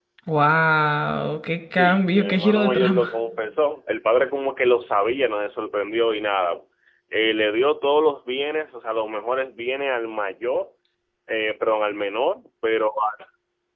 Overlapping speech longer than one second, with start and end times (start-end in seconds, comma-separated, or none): 1.8-3.1